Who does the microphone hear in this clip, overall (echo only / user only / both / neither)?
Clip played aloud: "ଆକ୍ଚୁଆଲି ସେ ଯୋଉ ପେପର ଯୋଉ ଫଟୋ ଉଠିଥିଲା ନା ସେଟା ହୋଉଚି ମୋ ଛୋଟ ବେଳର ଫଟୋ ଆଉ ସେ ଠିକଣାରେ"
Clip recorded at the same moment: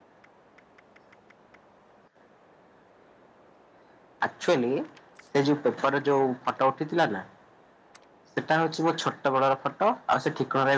echo only